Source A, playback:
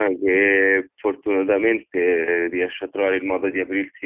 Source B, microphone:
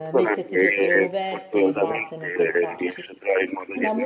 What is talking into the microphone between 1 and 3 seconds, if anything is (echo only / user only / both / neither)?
both